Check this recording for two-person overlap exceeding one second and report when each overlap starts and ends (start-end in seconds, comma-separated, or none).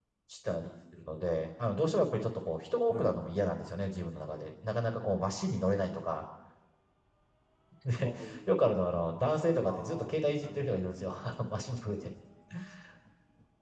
9.6-10.8